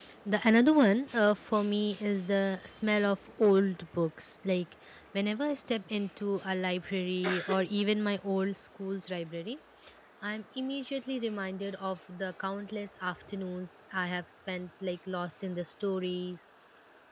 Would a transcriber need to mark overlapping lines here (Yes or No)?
No